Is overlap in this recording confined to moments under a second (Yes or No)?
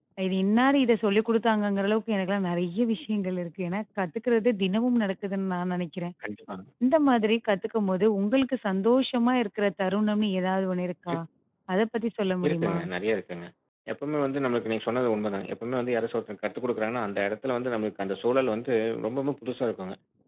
Yes